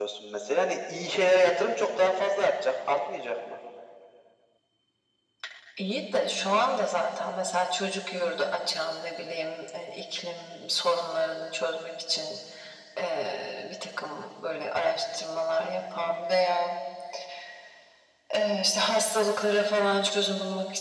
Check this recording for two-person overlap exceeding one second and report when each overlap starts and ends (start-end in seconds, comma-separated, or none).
none